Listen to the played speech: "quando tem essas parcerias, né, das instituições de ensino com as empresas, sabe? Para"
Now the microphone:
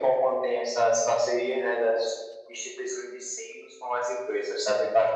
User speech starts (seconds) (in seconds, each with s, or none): none